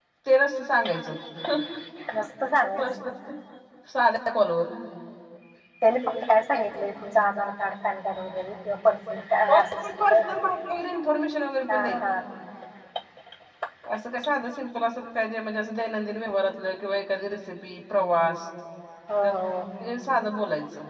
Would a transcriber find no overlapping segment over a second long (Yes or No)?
Yes